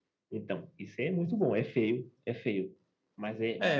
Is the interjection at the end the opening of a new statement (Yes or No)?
Yes